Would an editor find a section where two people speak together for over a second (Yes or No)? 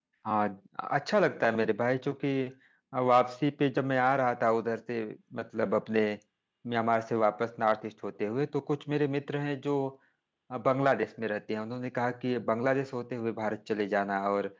No